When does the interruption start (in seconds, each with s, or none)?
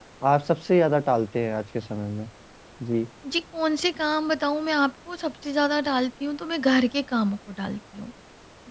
none